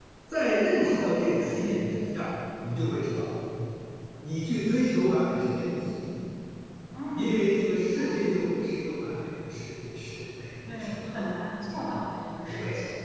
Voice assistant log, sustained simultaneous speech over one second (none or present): present